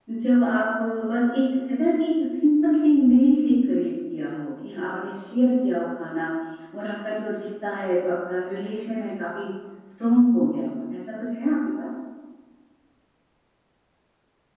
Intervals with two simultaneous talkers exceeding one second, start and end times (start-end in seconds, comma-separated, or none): none